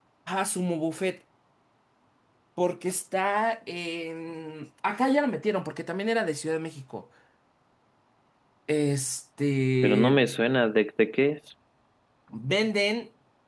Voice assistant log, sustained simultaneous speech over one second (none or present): none